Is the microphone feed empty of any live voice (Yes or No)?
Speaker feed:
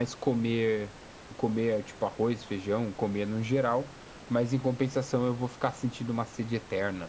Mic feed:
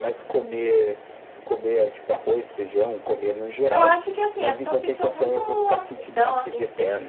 No